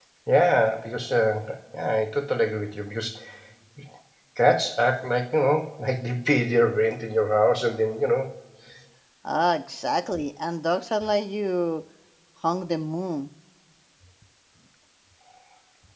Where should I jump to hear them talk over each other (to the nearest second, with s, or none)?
none